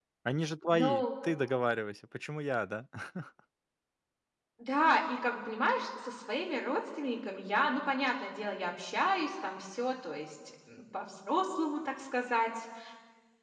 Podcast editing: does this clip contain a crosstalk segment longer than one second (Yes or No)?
No